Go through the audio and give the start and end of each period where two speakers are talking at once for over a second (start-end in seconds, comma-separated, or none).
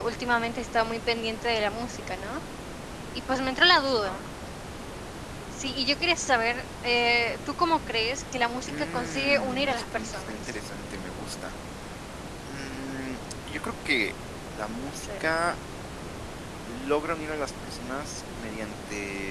8.7-10.5